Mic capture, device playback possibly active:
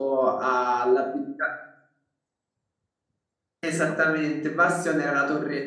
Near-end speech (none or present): present